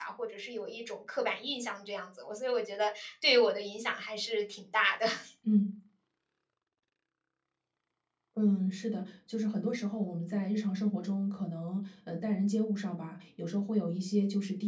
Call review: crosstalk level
none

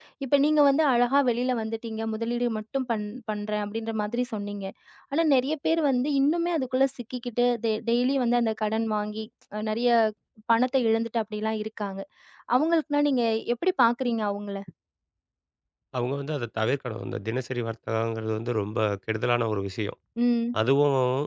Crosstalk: none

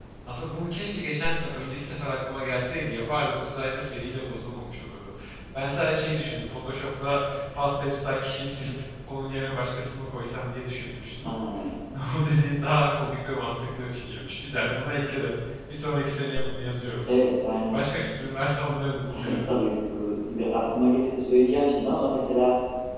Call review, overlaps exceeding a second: none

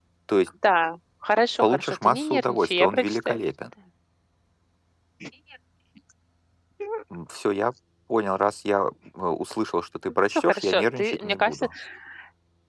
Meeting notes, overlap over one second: present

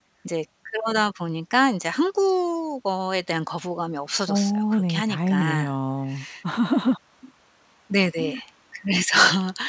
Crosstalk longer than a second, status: present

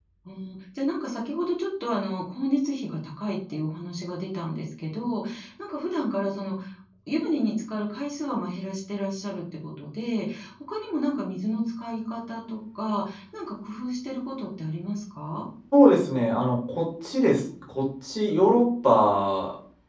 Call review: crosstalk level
none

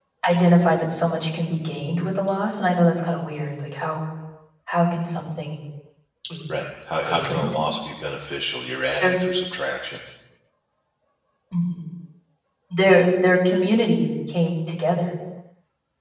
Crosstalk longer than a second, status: none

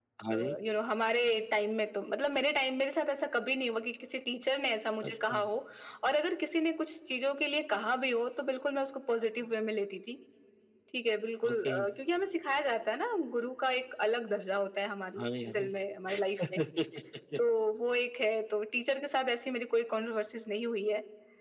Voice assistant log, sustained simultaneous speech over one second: none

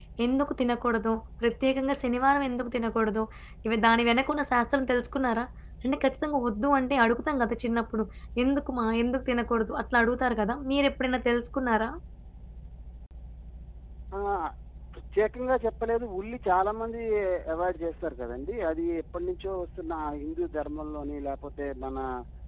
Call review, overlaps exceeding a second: none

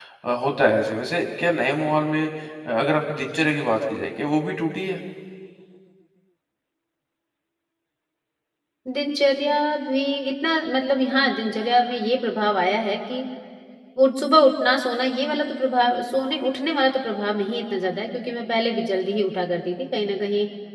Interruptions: none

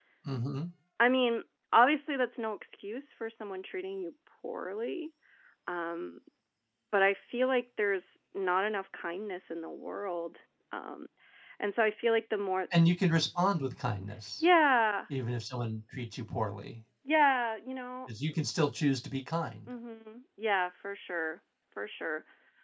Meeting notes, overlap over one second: none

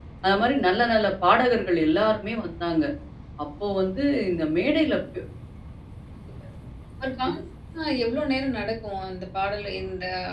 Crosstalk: none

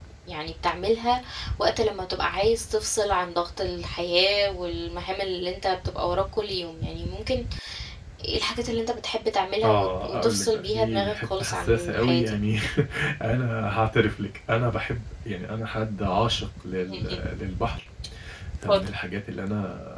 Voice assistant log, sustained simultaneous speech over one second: present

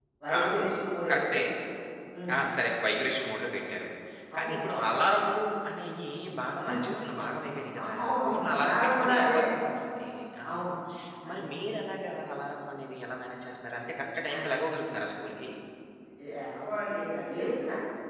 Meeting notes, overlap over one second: present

